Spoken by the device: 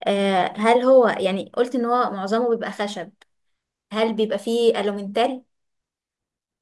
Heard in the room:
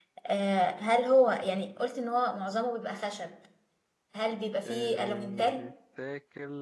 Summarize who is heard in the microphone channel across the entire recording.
both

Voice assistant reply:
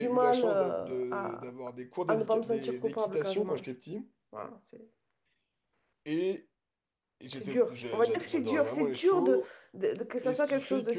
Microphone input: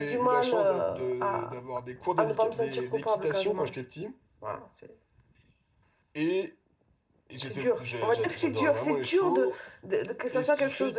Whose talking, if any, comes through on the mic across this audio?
echo only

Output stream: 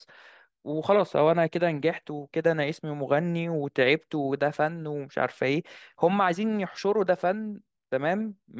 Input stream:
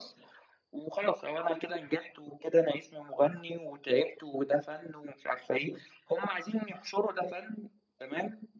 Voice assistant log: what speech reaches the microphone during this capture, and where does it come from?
echo only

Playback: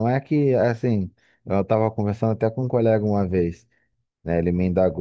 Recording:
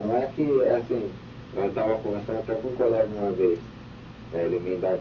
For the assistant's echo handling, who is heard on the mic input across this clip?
echo only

